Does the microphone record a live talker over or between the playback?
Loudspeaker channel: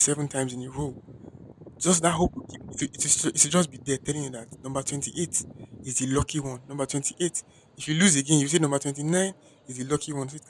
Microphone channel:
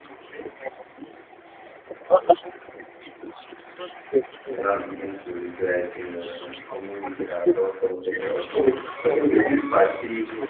Yes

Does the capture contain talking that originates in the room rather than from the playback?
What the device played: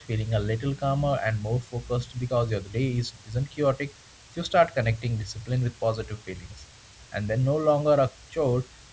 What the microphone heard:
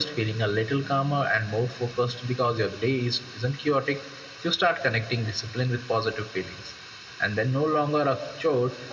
No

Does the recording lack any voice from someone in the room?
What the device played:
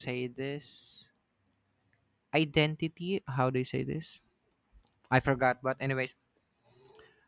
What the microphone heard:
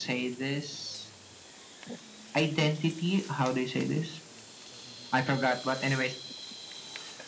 Yes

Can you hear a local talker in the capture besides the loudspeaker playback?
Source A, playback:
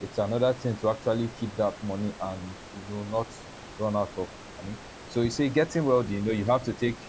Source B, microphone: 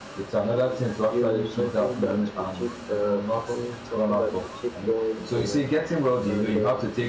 Yes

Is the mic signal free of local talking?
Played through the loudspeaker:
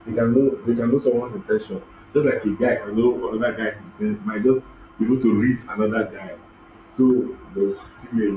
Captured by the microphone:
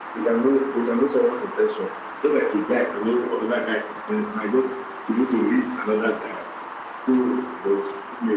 Yes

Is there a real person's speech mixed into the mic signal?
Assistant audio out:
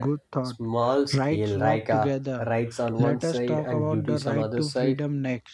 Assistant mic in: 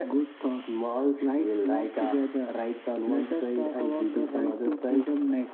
No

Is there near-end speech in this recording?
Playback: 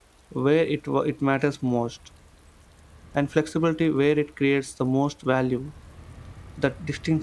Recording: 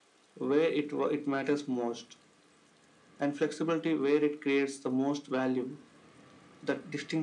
No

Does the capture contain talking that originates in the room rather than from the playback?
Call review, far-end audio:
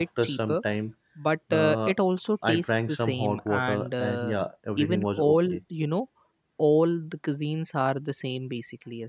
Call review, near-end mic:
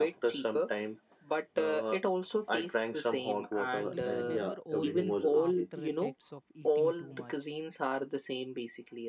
Yes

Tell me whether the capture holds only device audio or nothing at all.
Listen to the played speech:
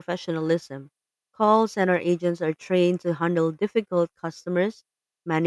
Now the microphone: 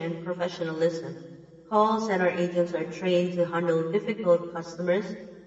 Yes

